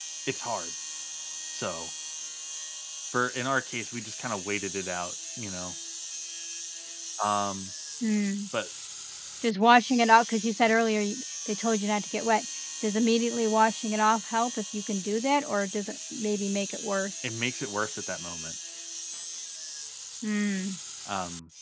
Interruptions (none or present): none